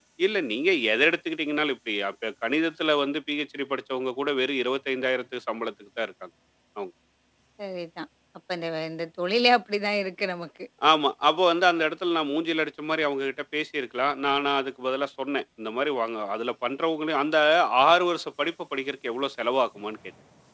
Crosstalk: none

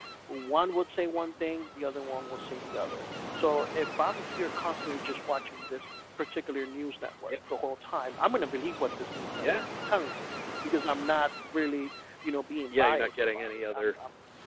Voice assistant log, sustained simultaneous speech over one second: present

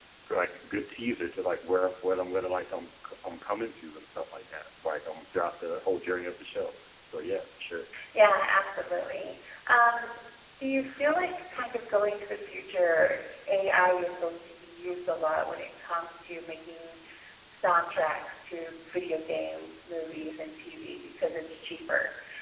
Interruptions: none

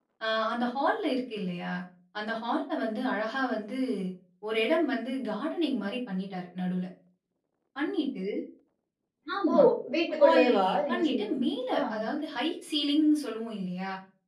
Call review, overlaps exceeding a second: present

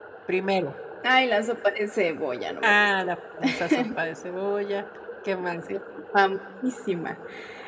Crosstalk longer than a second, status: none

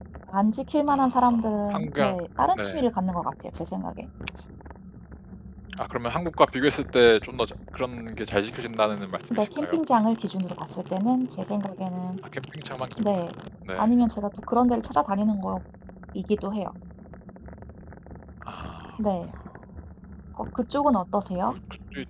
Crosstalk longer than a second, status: present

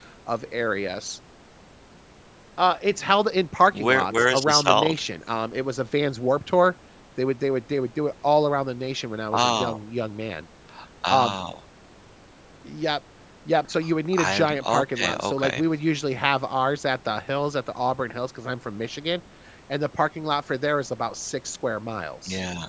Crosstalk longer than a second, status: present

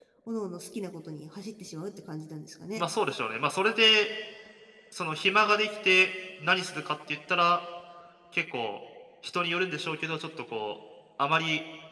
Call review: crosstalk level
none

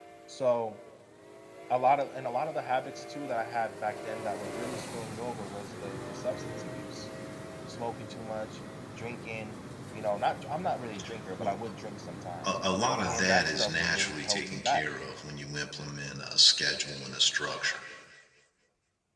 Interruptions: present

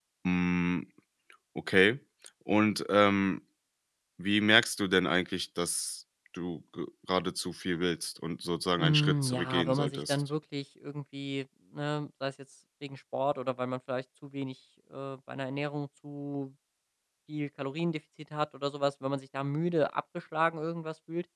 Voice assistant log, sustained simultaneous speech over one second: present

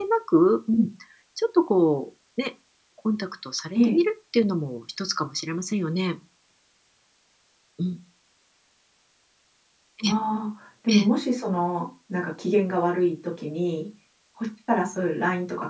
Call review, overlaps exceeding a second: none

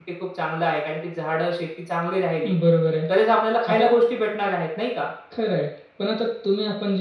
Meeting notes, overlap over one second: none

